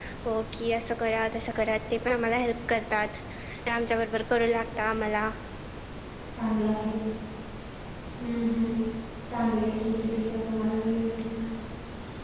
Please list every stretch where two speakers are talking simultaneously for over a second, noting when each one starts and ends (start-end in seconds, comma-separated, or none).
none